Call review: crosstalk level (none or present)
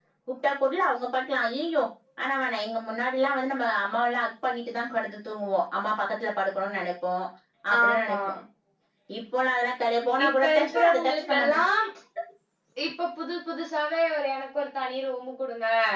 present